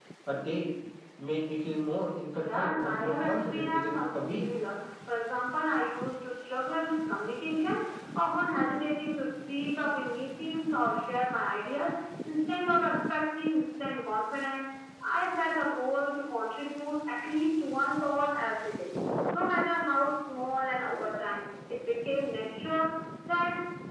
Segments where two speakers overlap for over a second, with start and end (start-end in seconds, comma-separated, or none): 2.4-4.4